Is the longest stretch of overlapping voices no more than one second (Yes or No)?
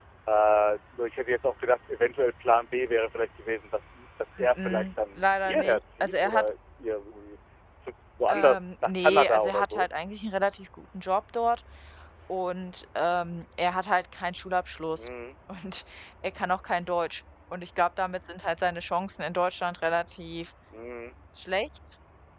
No